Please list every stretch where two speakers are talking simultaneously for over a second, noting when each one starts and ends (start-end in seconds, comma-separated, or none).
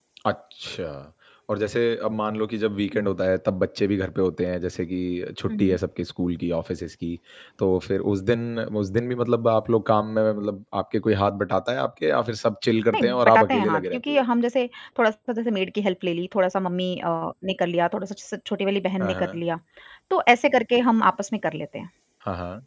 12.9-14.2